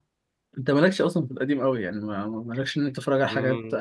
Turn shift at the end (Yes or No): No